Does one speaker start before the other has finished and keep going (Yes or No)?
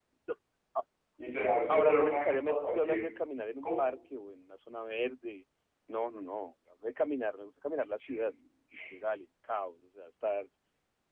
Yes